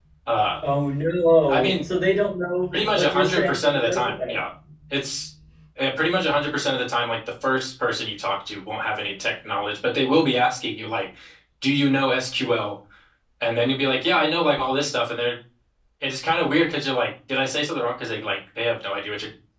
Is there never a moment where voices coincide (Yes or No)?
No